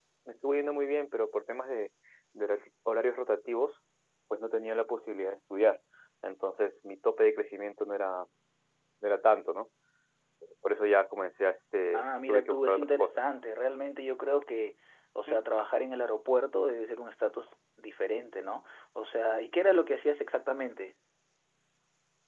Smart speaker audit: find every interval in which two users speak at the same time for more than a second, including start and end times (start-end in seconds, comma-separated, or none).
11.9-13.2